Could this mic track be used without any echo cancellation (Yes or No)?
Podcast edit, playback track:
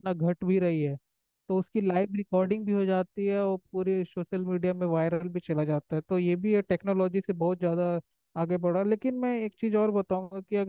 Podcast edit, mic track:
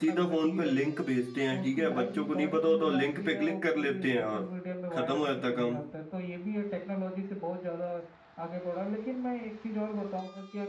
No